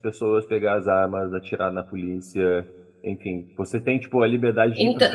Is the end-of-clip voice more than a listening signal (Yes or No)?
No